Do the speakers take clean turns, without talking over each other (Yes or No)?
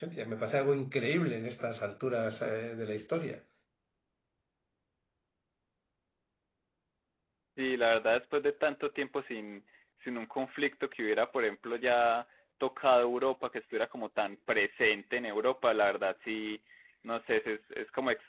Yes